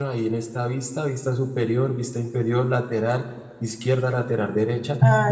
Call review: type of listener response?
taking over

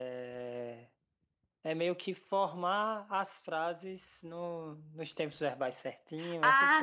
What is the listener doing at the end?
taking over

